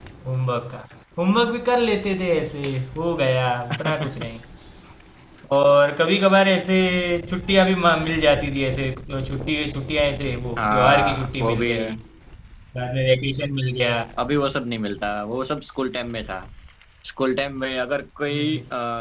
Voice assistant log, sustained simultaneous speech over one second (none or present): present